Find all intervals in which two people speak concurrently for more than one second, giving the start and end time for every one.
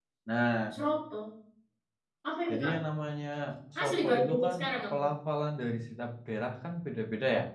3.8-5.0

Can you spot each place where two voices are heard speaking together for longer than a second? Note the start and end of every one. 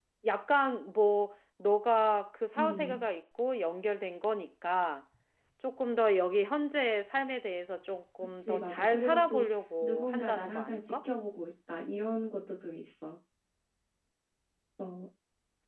8.2-11.0

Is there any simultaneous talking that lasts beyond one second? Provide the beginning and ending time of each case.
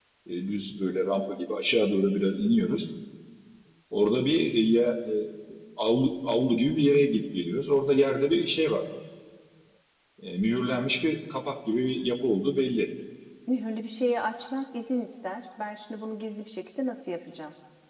none

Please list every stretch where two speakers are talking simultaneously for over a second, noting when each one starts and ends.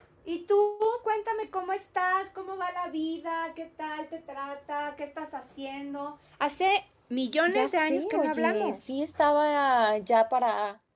7.5-8.8

